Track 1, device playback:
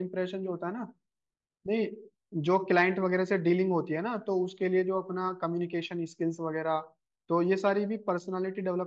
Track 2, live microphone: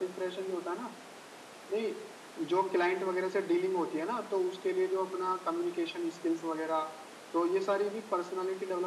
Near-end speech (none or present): none